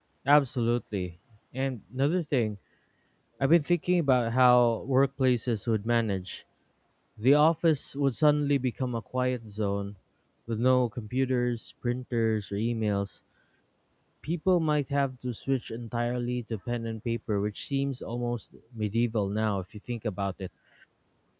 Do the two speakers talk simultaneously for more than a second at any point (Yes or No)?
No